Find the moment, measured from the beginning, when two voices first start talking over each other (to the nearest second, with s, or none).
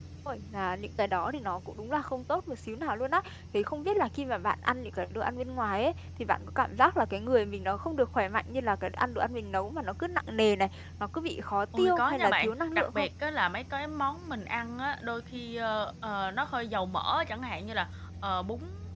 12 s